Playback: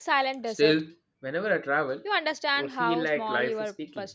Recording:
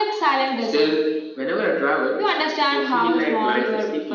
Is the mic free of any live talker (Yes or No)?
Yes